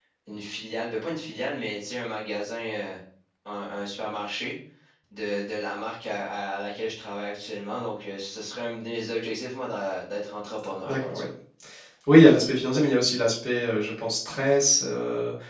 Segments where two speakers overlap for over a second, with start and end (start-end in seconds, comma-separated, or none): none